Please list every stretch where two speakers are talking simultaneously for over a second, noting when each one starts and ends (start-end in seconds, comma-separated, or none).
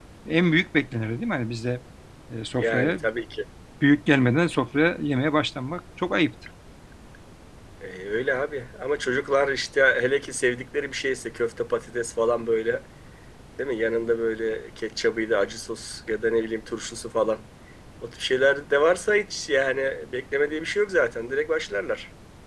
none